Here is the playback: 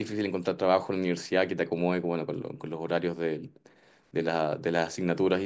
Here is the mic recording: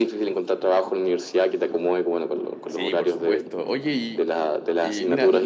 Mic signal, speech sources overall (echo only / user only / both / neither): both